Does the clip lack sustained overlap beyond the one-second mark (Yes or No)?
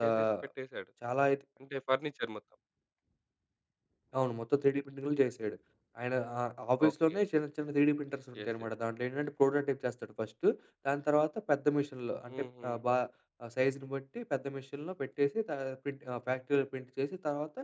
Yes